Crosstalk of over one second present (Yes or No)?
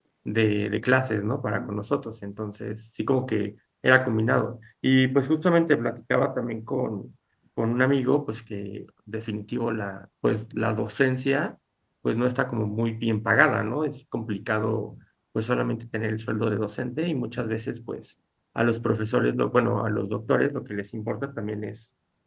No